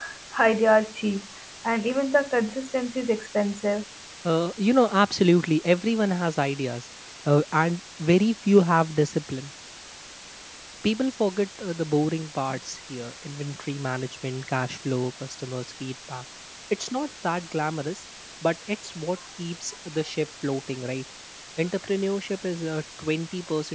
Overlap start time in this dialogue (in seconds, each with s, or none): none